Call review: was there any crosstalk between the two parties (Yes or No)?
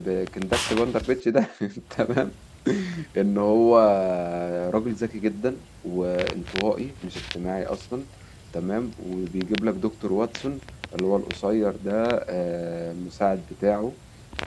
No